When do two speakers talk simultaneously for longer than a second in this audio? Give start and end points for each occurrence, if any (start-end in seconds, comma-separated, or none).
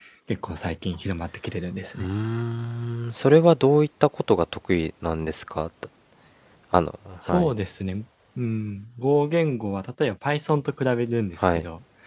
none